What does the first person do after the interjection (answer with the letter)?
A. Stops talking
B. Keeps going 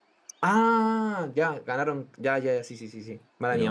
A